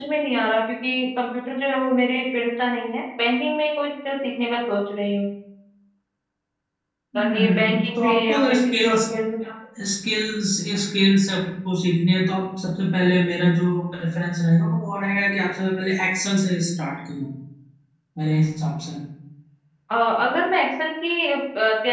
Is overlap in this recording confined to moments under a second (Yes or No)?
No